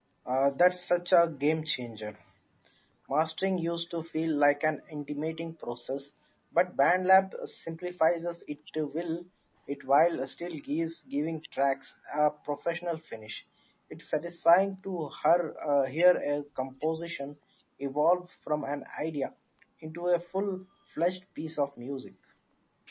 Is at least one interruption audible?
No

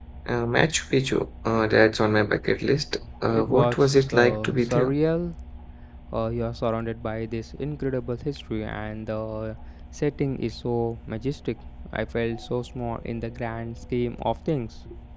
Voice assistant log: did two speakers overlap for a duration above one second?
Yes, from 3.3 s

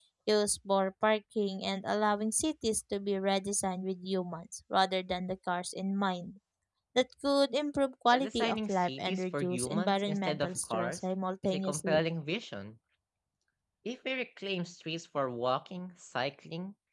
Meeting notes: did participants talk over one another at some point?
Yes, from 8.1 s

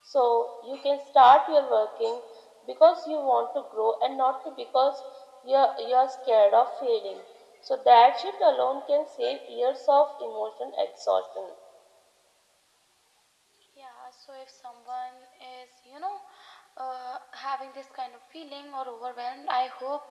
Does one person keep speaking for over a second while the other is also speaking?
No

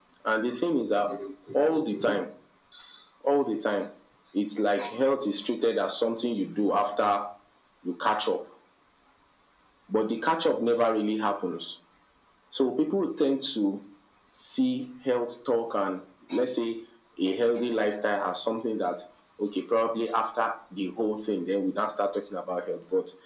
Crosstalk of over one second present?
No

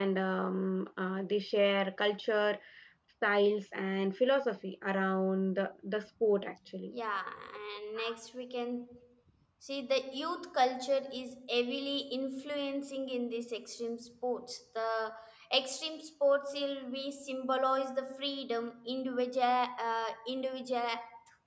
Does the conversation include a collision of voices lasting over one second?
No

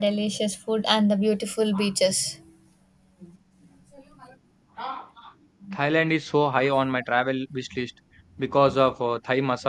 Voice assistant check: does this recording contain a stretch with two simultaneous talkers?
No

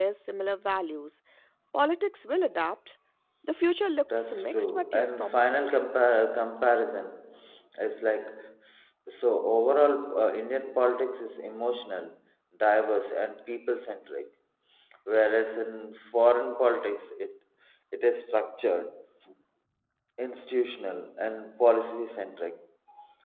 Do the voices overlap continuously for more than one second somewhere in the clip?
Yes, from 4.2 s

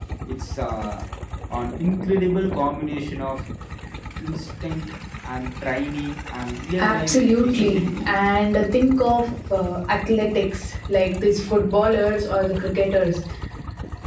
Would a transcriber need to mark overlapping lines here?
Yes, from 6.8 s

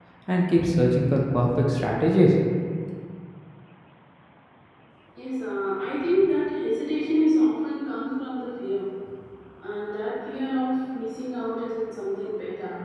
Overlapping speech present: No

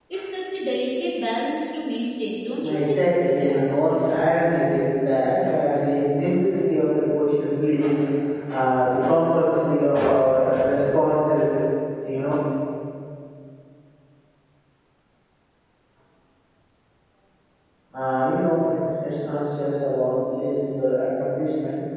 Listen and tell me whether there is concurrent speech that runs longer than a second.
No

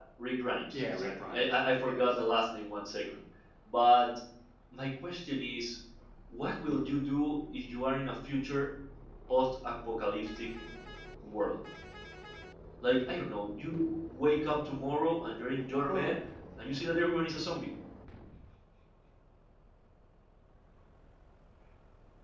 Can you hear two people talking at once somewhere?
Yes, from 0.7 s

